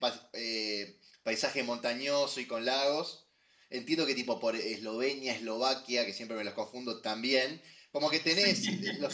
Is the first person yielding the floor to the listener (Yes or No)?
No